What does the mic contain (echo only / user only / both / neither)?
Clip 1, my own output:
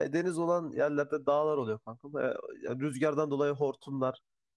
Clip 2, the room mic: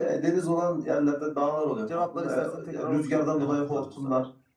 both